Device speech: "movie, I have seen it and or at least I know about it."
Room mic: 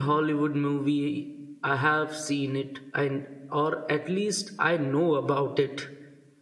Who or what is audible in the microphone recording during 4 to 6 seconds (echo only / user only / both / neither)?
echo only